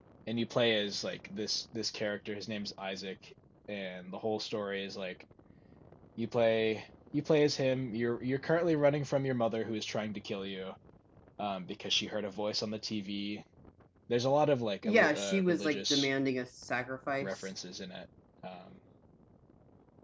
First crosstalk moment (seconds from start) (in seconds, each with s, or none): 14.8 s